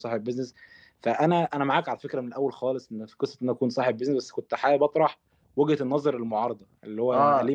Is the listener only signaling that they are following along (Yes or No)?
Yes